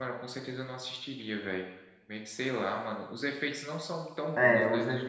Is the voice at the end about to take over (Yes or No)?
Yes